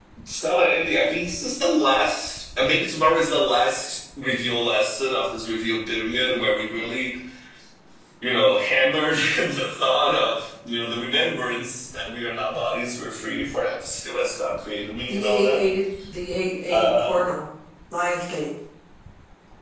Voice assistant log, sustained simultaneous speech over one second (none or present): none